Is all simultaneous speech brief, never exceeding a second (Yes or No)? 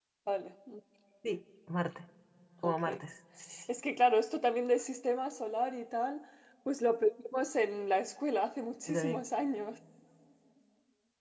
Yes